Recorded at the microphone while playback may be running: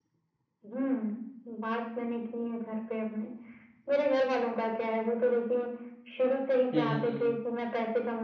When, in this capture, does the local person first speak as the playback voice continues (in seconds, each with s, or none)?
6.7 s